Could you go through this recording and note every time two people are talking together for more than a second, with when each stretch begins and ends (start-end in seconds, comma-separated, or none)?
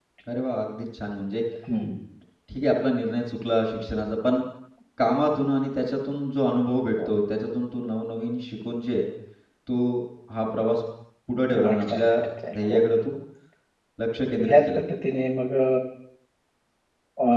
11.5-12.9